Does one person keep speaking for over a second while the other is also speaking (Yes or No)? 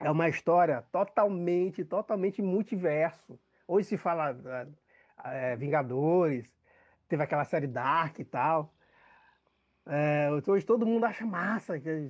No